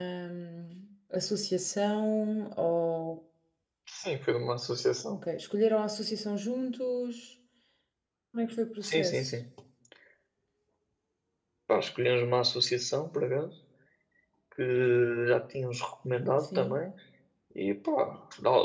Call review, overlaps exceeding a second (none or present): none